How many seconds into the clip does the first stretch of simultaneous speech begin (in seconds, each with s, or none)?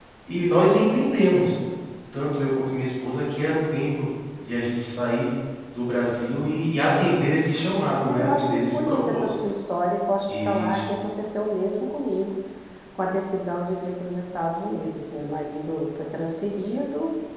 8.0 s